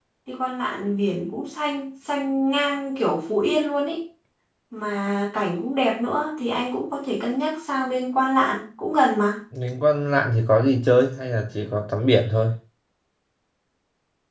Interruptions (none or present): none